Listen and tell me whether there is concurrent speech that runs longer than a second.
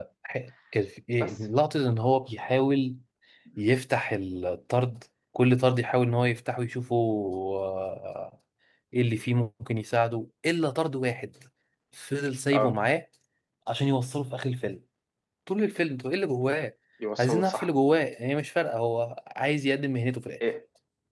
No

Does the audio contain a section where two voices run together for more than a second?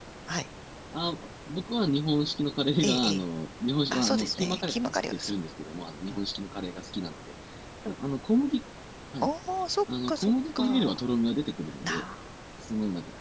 Yes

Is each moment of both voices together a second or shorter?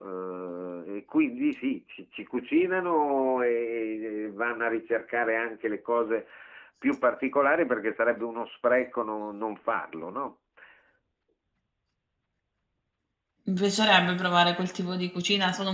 Yes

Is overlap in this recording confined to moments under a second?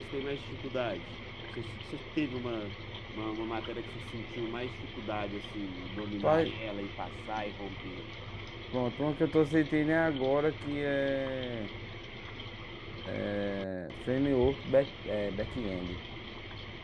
Yes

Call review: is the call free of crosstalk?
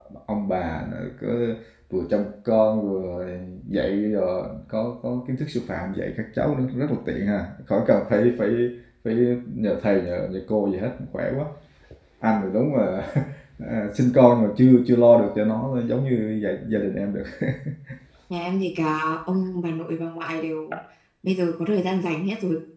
Yes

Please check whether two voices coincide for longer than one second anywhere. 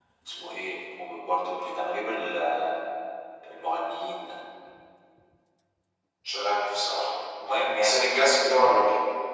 No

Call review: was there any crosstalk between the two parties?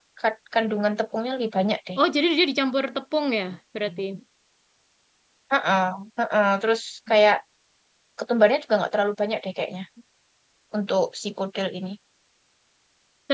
No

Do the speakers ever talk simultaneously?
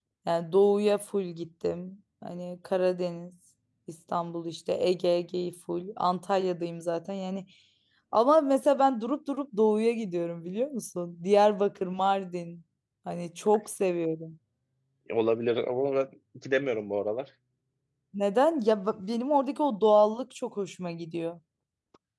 No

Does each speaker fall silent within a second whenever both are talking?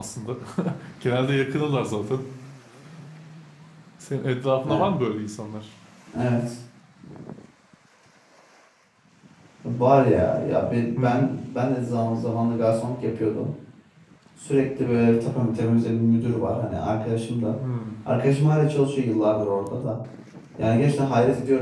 Yes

